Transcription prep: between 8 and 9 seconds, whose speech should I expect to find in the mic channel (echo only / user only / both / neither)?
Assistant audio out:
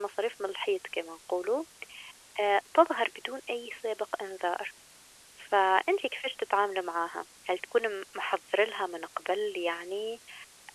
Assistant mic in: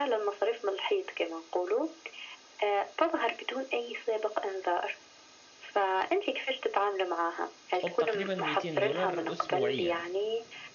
both